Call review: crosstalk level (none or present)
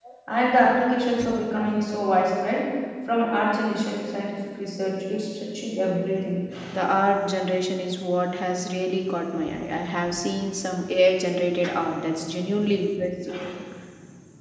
none